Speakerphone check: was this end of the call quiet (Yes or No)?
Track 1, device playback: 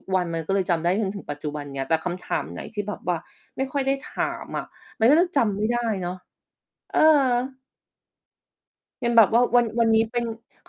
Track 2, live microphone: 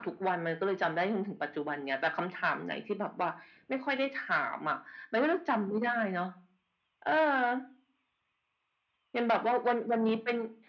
Yes